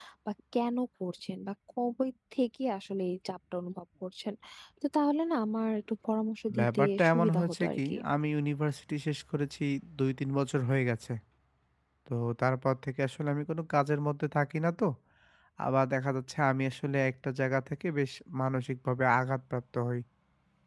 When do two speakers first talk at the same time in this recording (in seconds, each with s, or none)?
6.5 s